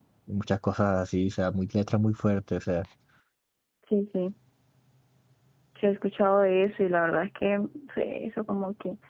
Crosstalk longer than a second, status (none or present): none